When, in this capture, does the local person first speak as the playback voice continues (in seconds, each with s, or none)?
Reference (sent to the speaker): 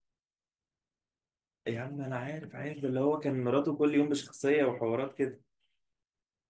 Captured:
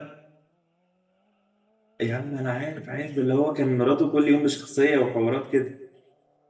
none